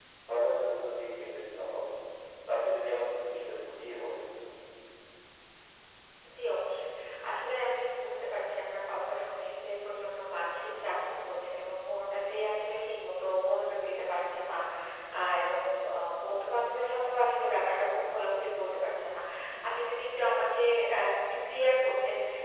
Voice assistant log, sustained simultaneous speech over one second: none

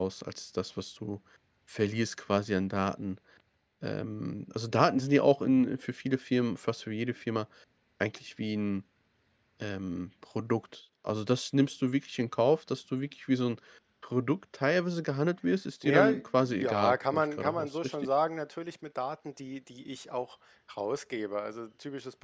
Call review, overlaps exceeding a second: present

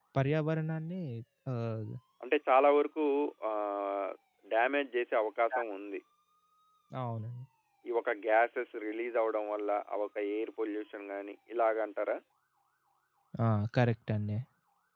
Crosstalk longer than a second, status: none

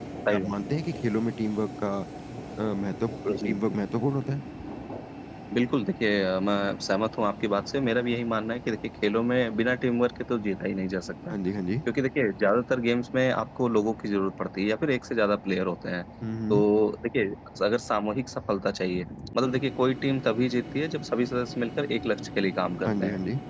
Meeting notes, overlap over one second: none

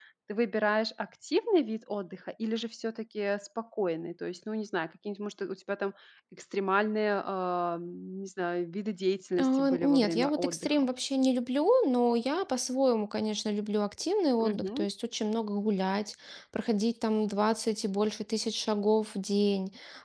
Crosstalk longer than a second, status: present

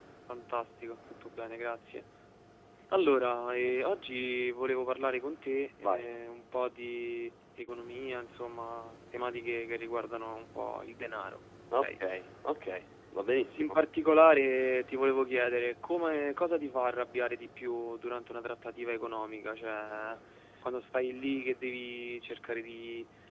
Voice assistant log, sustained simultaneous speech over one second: none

